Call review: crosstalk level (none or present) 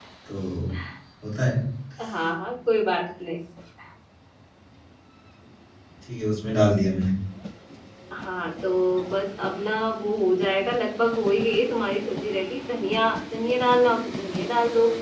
none